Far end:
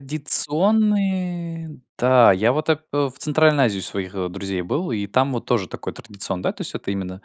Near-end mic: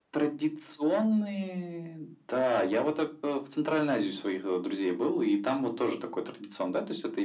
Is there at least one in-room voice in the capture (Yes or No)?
No